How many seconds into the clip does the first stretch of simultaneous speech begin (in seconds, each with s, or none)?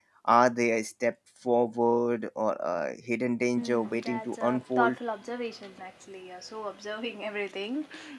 3.6 s